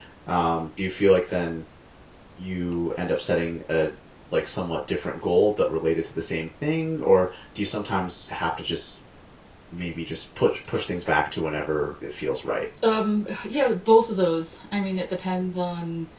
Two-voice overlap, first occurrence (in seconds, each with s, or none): none